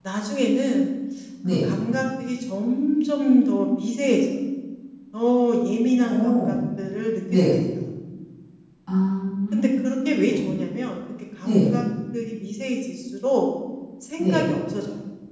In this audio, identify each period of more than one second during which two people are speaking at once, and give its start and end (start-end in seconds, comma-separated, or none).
none